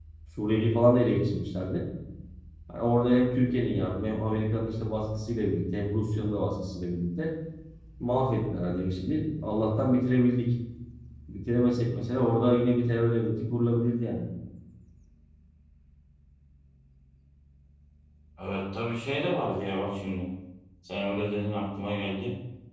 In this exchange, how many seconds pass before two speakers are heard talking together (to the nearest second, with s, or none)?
none